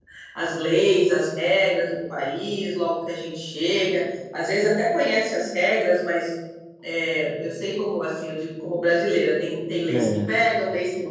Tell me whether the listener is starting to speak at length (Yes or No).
No